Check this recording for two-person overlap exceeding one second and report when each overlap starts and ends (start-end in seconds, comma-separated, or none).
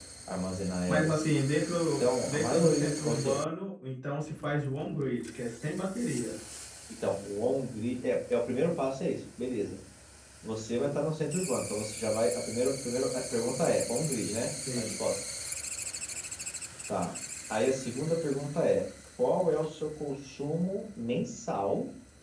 2.0-3.4